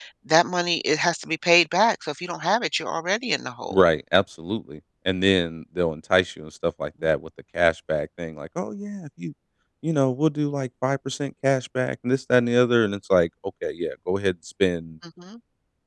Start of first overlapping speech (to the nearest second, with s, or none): none